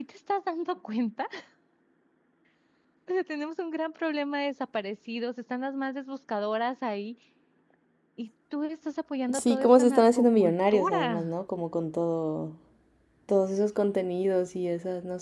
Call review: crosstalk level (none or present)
present